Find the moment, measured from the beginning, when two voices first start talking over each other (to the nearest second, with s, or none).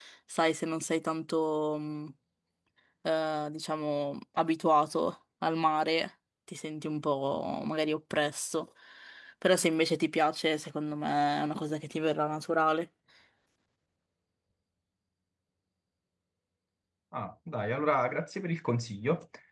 none